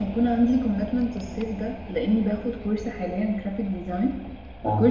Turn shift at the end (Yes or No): No